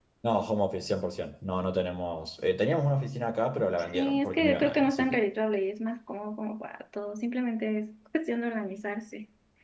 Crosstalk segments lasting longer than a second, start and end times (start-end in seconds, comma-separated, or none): 3.8-5.2